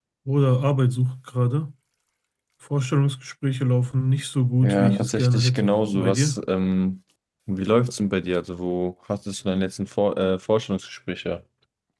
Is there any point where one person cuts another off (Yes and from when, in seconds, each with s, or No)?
Yes, from 4.6 s